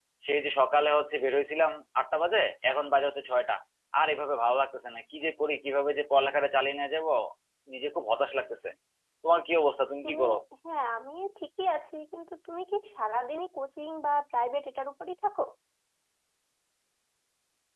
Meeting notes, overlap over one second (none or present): none